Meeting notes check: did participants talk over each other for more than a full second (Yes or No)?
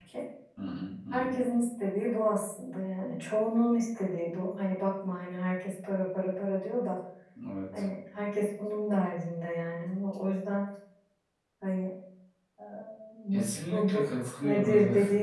Yes